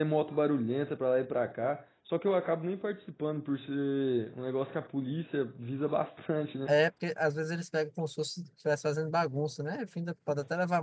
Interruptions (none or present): none